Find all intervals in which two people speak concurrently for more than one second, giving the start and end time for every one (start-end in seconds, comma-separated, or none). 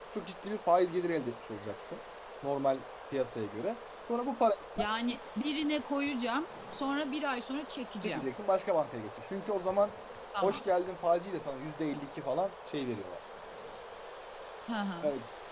none